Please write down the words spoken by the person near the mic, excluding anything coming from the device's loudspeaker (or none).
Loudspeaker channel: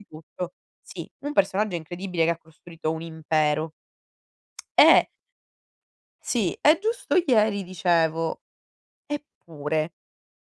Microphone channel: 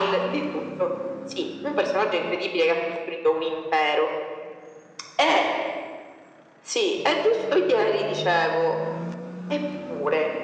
none